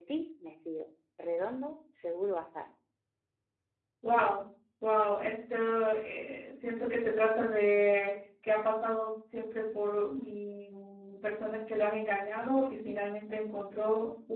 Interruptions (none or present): none